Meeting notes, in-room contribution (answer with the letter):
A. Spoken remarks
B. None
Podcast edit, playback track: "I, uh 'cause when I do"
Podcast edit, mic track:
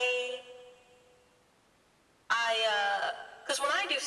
B